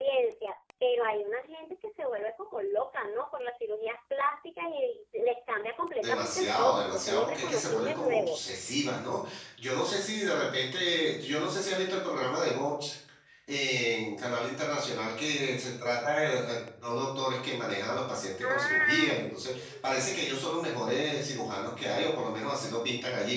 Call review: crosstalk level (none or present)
present